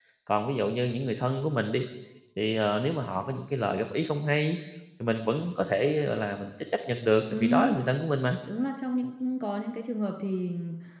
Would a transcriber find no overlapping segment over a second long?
Yes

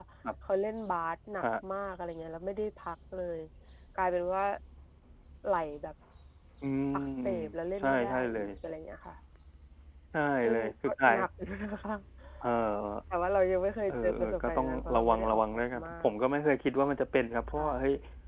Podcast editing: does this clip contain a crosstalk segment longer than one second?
Yes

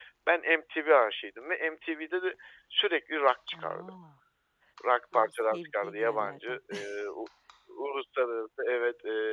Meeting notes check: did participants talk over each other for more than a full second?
Yes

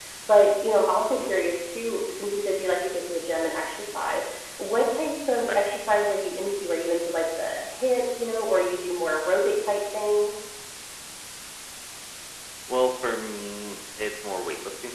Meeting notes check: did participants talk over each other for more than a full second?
No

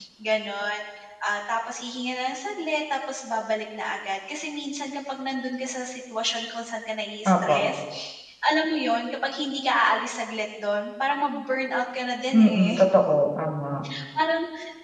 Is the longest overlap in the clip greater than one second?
No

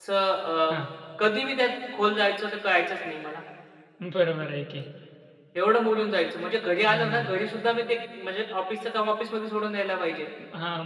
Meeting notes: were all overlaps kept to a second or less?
Yes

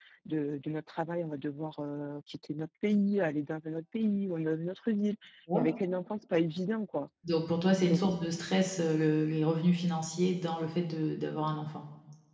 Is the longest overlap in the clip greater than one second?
No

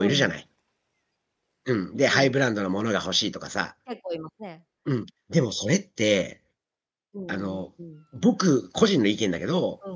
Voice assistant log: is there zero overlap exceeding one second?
Yes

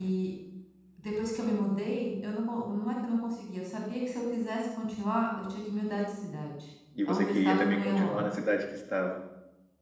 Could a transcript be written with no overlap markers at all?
No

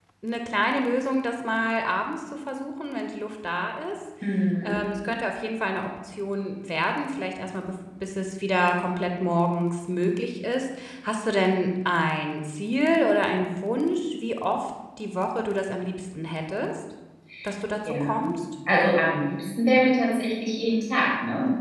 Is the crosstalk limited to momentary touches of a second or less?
Yes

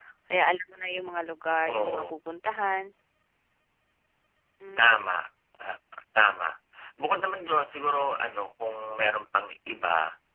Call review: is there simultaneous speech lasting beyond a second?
No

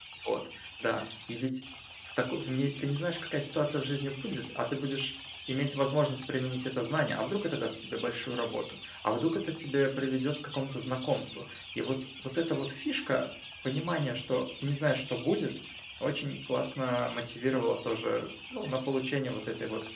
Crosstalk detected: No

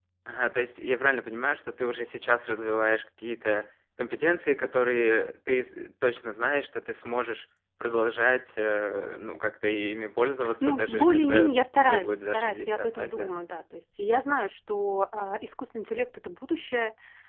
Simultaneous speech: Yes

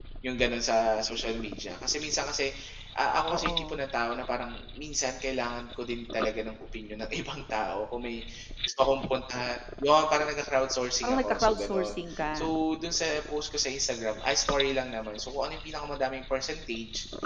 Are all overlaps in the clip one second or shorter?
No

